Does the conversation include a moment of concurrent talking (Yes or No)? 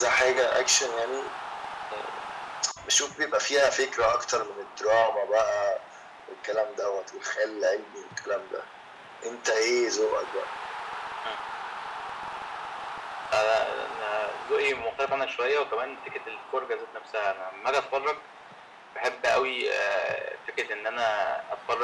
No